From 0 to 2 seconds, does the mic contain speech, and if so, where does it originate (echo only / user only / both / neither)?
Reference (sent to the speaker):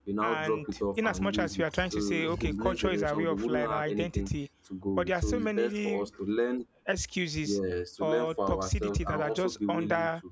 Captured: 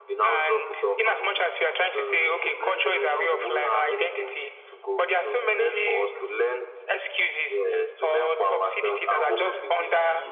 echo only